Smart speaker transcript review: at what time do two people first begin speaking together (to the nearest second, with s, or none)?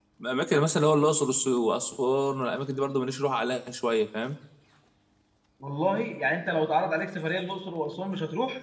none